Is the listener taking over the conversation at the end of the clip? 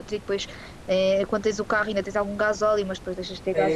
No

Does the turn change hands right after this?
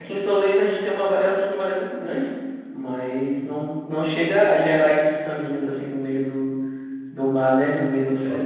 Yes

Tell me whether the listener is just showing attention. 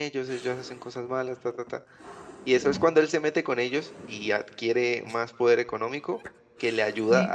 Yes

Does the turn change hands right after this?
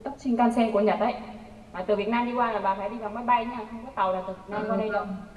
Yes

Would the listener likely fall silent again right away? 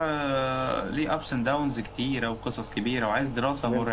Yes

